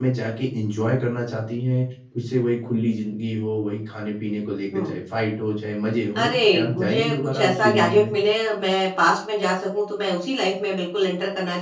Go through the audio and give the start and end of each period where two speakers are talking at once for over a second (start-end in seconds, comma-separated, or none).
6.2-8.1